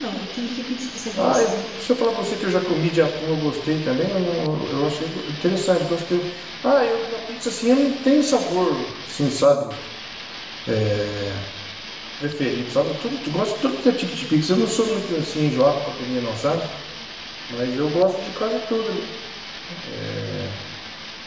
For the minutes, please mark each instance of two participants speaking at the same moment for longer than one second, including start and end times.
none

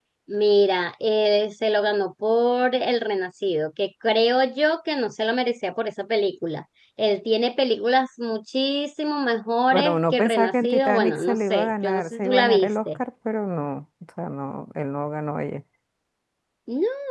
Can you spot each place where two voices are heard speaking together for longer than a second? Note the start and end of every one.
9.7-13.0

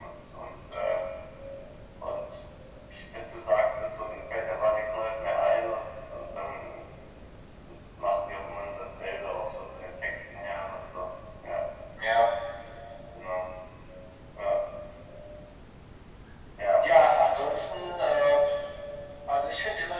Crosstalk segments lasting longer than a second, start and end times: none

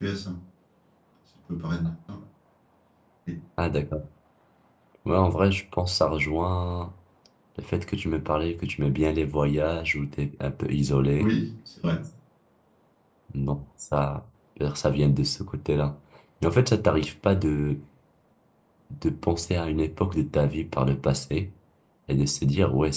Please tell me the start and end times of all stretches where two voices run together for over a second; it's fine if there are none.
none

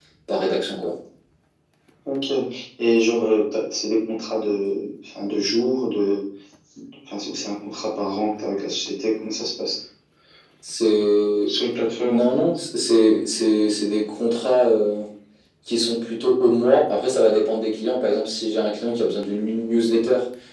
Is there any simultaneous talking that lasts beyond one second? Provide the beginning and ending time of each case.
none

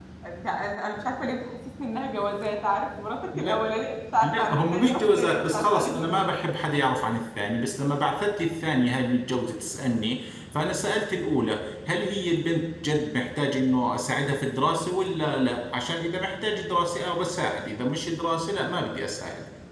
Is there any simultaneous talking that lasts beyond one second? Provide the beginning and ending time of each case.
4.2-6.3

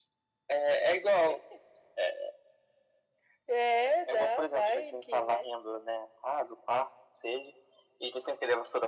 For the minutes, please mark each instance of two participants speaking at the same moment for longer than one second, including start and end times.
4.1-5.4

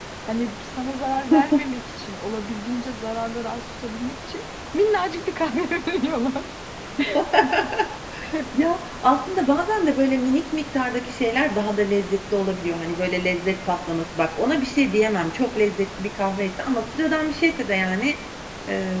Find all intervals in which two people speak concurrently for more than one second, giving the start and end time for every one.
none

